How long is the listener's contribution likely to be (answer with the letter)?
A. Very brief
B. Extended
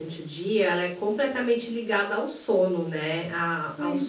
A